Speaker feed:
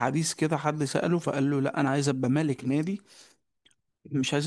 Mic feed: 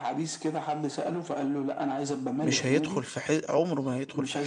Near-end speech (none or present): present